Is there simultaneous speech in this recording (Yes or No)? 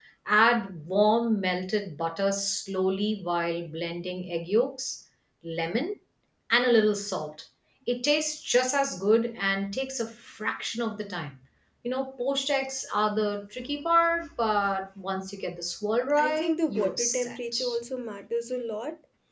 Yes